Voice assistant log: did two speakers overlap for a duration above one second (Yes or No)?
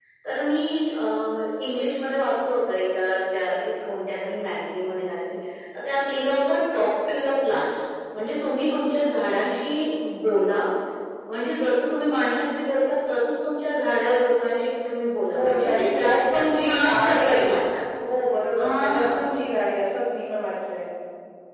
Yes